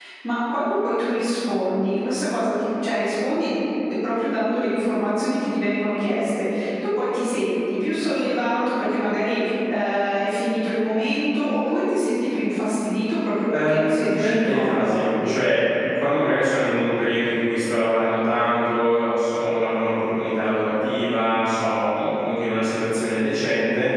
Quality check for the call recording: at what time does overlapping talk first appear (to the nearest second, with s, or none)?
13 s